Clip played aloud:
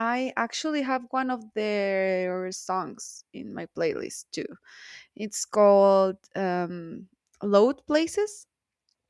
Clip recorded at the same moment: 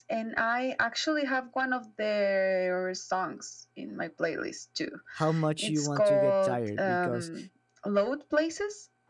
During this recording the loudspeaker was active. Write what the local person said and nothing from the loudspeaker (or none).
how much you want to get tired because